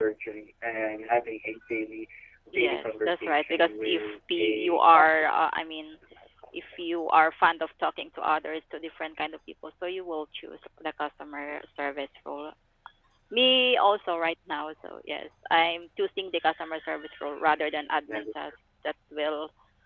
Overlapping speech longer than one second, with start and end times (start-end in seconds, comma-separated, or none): 2.5-5.2